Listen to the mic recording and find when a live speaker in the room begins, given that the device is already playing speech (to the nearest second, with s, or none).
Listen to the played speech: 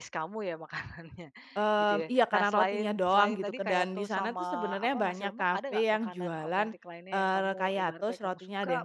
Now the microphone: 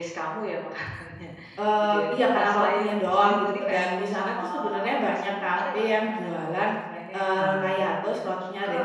7 s